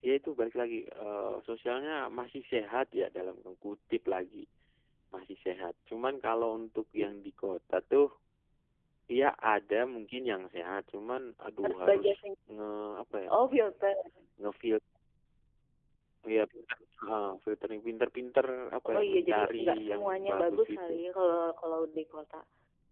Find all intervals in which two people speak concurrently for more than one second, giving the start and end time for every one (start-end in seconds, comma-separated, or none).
18.9-20.9